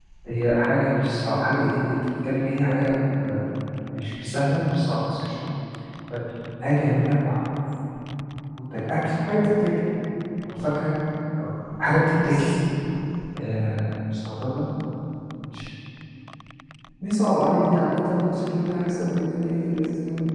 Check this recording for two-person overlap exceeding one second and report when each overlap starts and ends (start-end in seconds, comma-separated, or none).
none